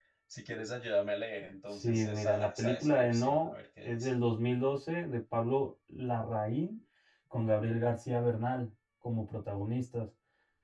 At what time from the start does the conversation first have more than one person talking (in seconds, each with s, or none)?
1.7 s